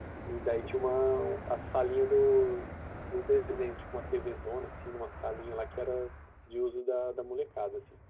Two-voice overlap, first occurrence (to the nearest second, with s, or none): none